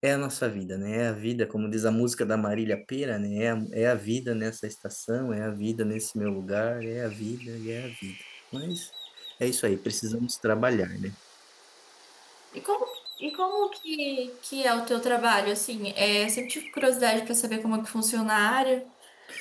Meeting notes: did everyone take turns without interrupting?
Yes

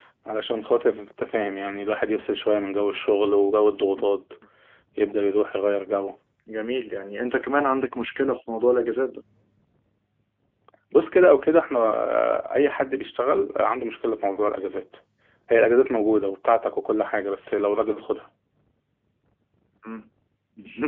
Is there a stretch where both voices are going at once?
No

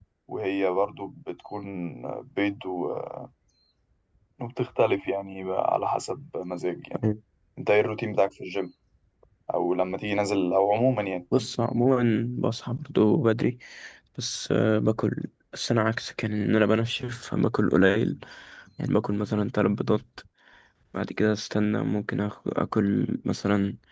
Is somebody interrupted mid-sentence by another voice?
No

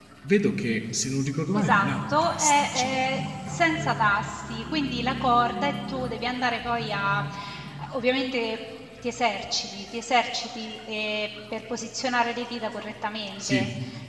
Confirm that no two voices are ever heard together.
No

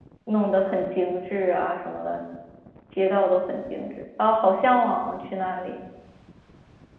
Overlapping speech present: No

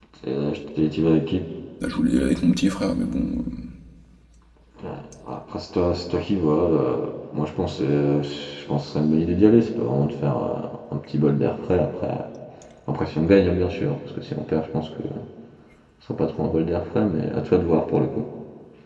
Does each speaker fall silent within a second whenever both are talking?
Yes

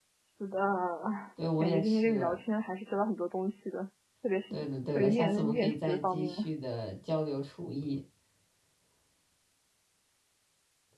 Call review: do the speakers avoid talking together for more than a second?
No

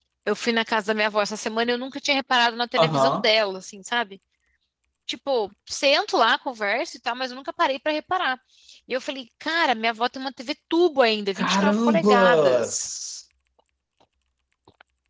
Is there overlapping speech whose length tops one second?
Yes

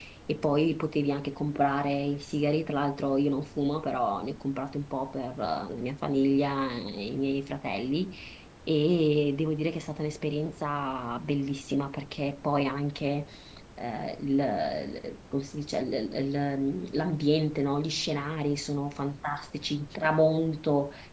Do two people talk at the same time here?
No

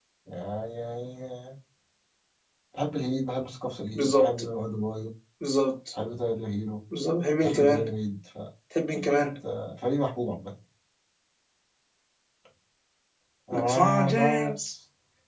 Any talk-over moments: Yes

